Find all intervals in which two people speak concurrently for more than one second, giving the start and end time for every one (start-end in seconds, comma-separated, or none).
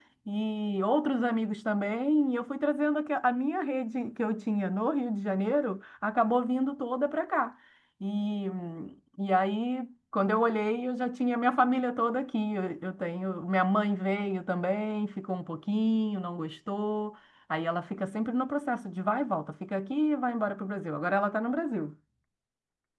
none